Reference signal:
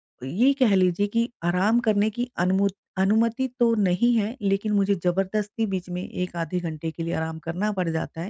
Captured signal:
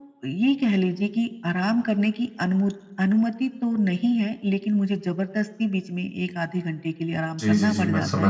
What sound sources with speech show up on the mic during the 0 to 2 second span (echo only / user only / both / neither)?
echo only